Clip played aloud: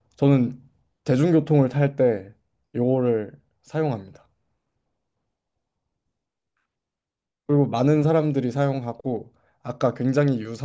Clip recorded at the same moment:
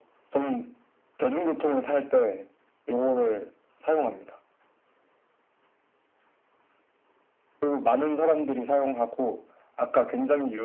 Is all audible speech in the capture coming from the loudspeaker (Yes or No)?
Yes